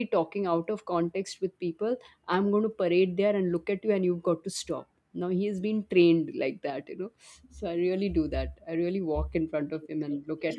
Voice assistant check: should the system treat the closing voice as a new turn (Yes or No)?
Yes